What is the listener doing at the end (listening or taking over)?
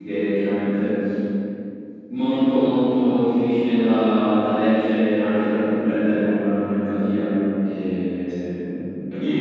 taking over